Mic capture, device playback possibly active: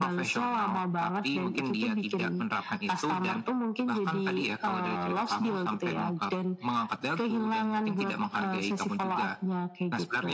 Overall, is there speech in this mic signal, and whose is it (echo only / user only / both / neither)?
echo only